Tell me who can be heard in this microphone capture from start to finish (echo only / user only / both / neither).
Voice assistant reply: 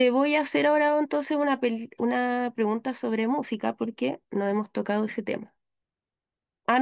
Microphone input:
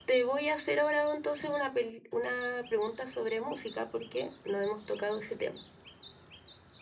echo only